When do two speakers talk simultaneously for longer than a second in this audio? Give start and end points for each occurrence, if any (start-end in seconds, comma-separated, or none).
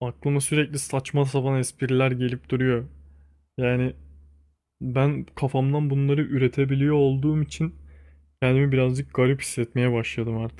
none